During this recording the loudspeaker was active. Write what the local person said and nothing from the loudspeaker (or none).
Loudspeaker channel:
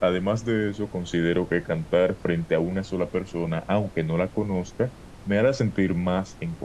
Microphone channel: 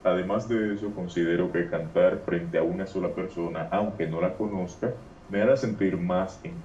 none